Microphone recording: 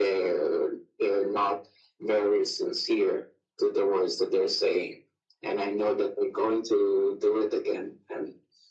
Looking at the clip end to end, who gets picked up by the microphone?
echo only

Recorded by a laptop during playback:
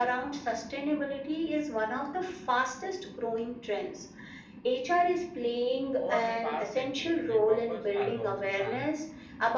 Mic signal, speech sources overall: both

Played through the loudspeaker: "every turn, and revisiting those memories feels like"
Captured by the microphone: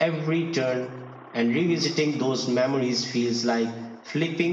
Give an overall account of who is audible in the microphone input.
echo only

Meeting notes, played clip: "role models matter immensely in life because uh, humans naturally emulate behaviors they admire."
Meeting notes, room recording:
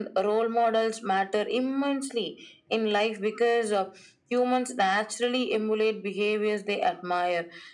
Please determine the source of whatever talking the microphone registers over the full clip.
echo only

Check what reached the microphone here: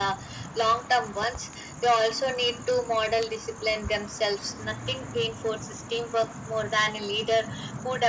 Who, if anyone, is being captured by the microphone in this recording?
echo only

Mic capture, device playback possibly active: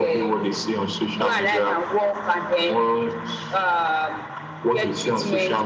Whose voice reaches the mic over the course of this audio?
echo only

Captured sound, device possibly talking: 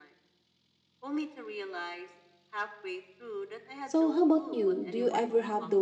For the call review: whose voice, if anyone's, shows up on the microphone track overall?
both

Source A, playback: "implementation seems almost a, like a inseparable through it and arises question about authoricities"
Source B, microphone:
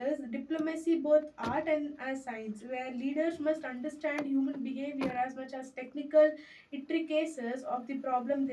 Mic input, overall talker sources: user only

